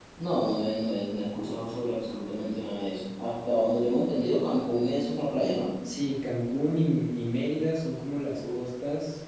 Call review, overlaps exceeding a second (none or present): none